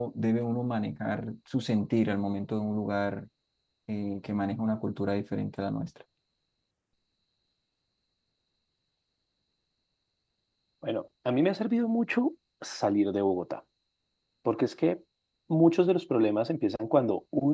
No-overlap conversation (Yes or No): Yes